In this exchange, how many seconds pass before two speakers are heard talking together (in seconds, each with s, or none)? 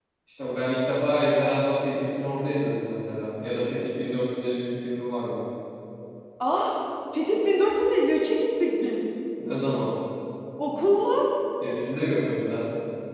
none